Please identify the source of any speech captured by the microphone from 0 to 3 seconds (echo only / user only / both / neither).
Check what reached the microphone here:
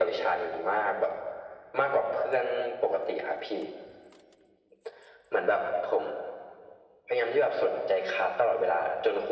echo only